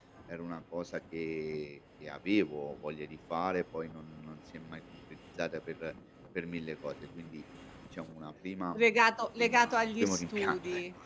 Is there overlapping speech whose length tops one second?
Yes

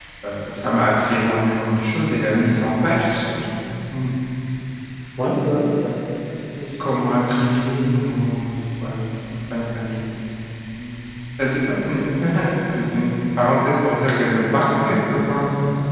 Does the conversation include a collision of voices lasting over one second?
No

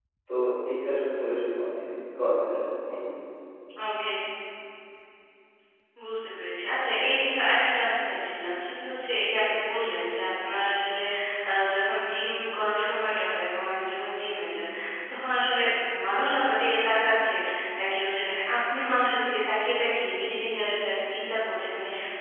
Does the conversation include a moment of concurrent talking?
No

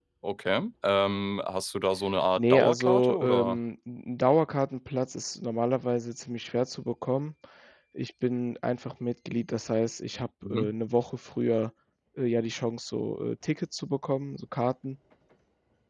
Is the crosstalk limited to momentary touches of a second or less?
No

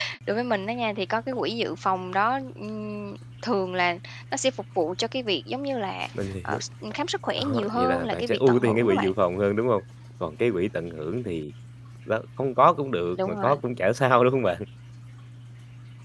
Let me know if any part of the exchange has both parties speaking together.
Yes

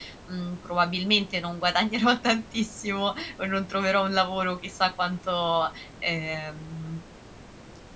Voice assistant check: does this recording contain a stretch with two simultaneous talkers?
No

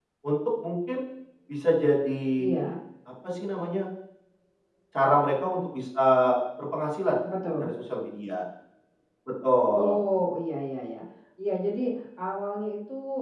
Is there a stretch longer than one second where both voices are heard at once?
No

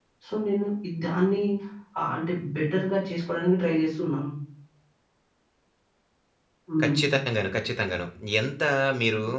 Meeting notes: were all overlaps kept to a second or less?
Yes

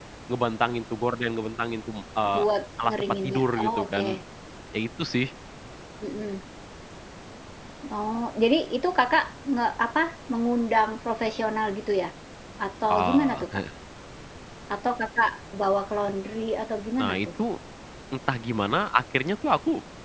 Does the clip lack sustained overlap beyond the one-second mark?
No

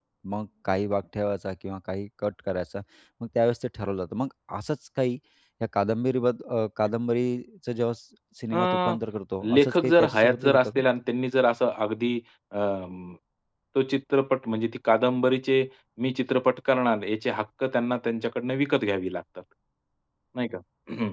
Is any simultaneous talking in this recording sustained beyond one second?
Yes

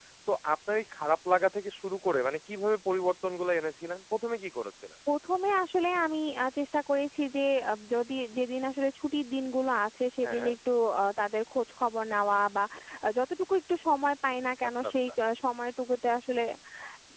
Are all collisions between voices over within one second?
Yes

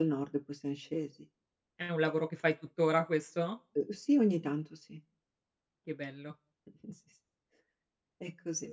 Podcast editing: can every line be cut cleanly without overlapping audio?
Yes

